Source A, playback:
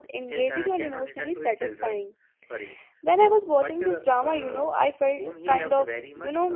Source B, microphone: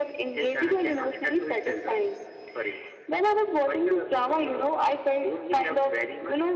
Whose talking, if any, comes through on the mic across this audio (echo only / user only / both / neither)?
echo only